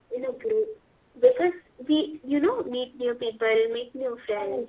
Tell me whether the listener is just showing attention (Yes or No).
Yes